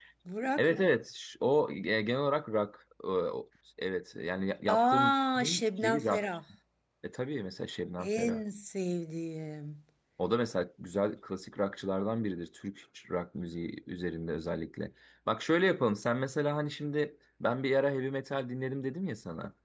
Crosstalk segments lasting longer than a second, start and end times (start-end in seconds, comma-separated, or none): 4.8-6.3